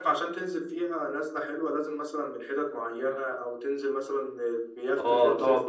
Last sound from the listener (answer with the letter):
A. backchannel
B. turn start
B